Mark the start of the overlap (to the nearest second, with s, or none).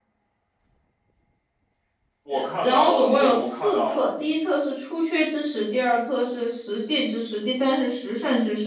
2 s